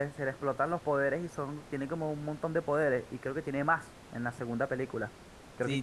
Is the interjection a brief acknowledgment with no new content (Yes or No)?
No